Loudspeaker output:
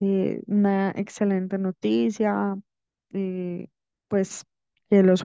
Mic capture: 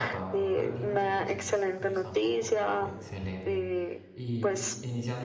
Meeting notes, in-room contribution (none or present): present